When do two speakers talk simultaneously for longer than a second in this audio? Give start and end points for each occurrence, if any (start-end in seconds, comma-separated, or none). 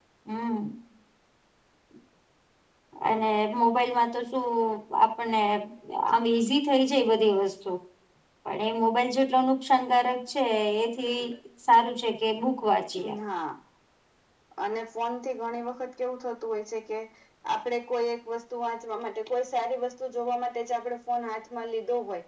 none